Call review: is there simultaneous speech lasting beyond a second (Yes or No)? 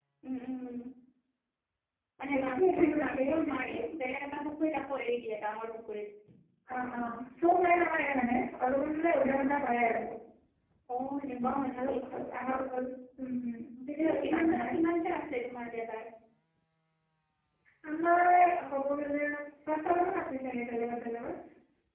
Yes